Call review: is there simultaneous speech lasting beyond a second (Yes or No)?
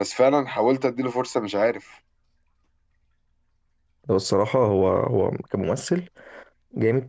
No